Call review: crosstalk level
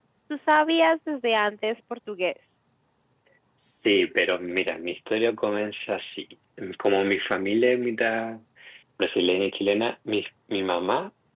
none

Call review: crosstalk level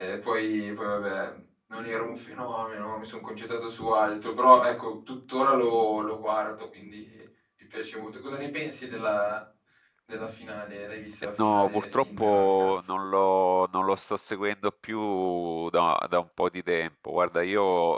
present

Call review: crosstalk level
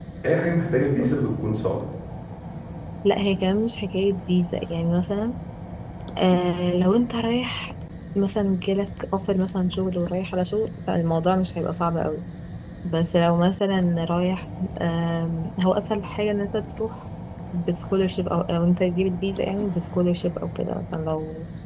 none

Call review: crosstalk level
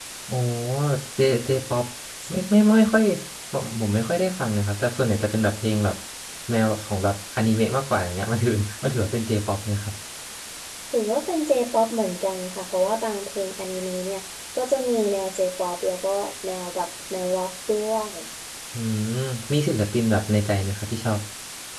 none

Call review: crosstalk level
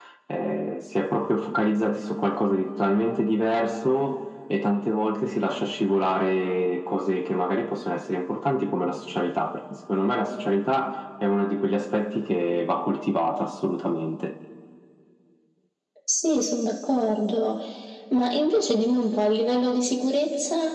none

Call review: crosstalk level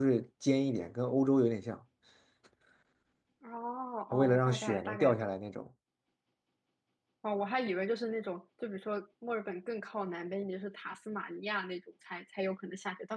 present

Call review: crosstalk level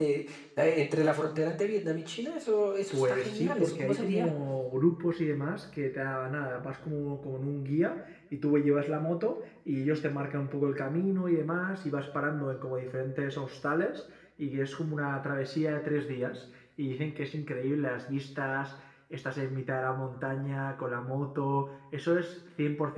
present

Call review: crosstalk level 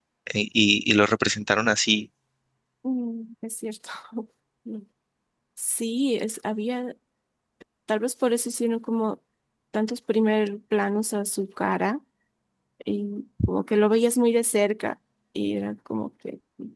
none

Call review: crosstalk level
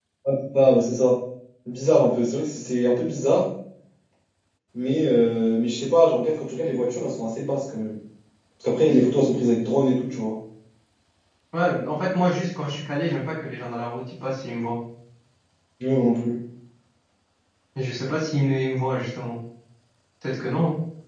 none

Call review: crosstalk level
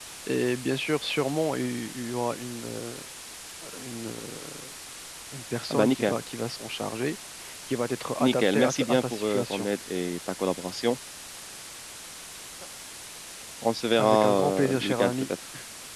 present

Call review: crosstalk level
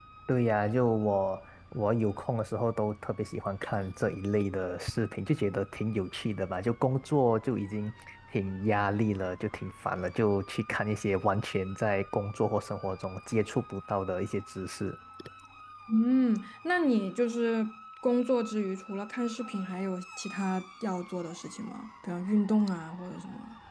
none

